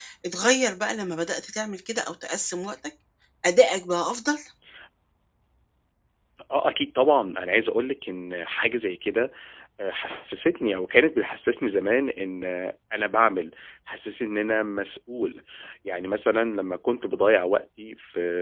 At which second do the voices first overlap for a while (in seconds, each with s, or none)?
none